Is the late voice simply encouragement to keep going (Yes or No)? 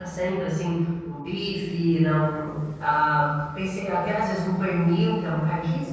No